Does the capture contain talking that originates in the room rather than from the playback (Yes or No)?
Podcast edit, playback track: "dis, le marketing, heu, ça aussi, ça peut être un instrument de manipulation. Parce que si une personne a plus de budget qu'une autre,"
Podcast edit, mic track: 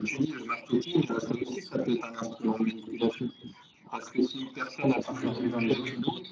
Yes